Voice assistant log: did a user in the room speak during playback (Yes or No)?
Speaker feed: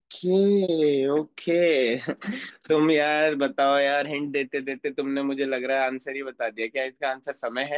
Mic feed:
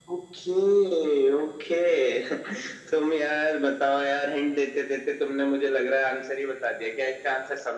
No